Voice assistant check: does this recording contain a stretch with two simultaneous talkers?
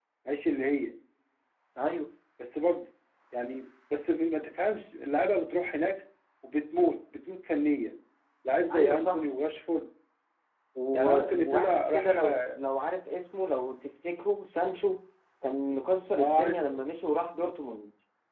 Yes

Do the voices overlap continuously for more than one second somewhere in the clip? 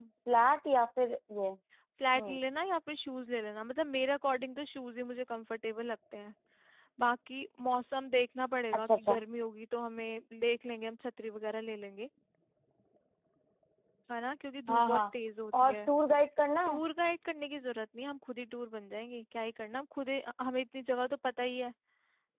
No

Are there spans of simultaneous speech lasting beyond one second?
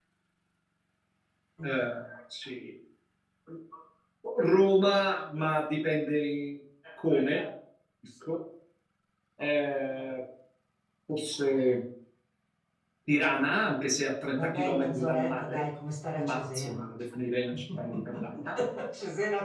Yes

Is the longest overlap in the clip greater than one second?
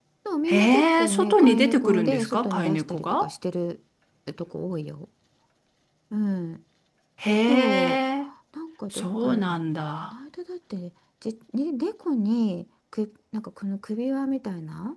Yes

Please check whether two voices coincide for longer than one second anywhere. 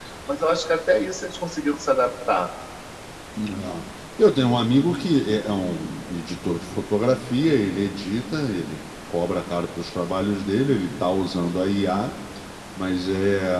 No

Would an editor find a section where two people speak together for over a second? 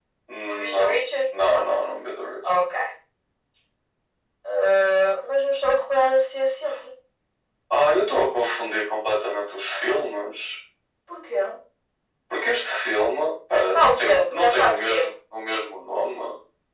Yes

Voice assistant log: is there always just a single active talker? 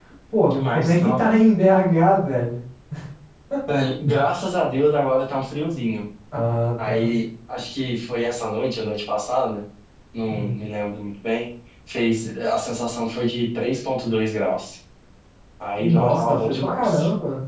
No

